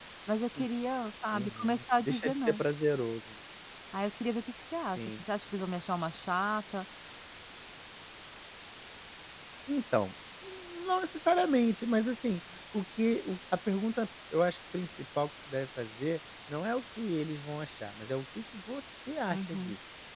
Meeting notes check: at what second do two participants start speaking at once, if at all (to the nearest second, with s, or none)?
1 s